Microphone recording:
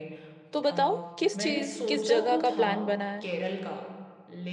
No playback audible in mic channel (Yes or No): No